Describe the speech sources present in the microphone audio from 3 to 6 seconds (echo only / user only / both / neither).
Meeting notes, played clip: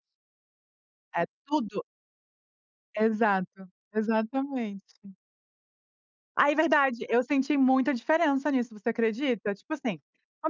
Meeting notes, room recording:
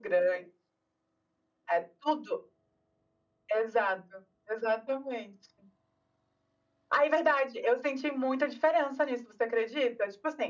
echo only